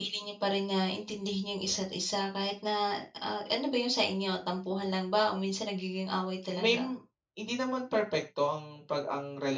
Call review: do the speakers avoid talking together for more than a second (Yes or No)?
Yes